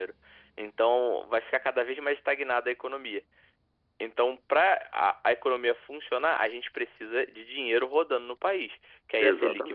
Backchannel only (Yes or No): Yes